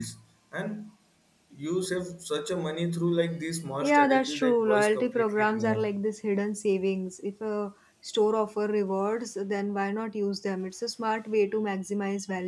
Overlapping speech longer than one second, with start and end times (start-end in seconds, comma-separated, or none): 3.8-5.9